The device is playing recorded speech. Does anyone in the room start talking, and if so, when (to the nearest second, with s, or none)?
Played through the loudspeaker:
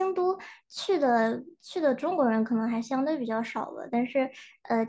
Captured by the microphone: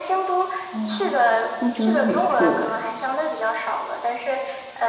1 s